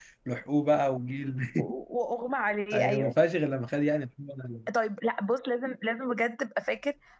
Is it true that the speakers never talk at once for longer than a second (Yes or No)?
Yes